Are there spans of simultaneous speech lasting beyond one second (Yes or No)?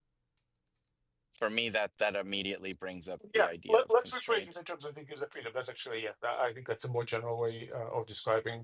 Yes